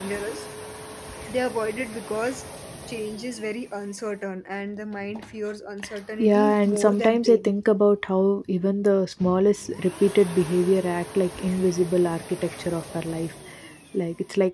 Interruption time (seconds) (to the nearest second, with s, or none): 6 s